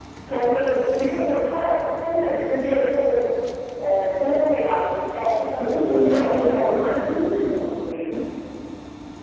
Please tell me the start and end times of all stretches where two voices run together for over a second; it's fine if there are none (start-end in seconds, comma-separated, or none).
5.6-6.8